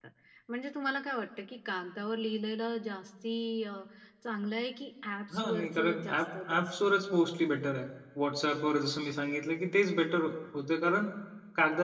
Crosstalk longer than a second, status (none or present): present